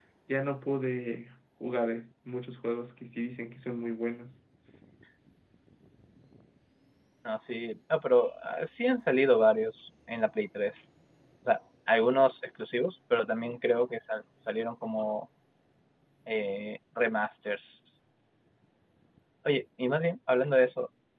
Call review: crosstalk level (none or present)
none